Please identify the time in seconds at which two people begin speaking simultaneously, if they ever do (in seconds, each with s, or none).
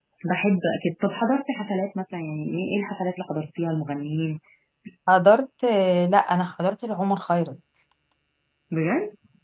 none